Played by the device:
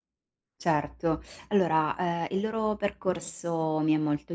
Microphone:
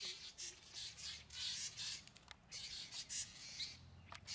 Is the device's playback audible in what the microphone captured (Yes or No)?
No